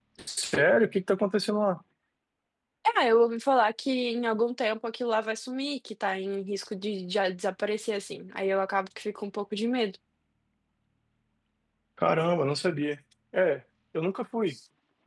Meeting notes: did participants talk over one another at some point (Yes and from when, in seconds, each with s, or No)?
No